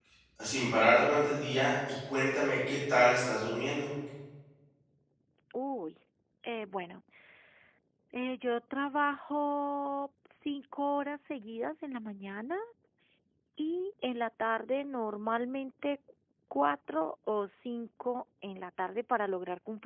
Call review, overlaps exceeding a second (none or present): none